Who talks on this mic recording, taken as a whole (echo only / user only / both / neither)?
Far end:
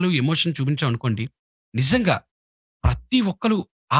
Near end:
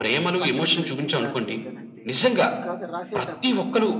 both